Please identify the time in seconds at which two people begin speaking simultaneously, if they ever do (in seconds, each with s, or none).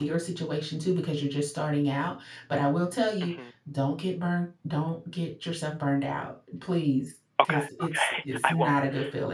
7.4 s